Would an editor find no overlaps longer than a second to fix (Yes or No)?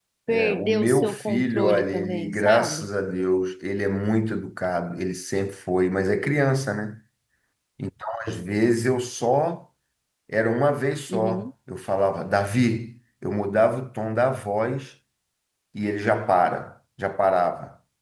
No